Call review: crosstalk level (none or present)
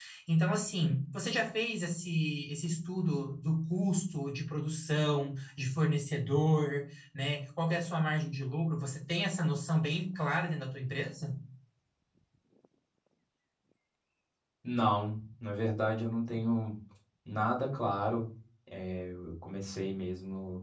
none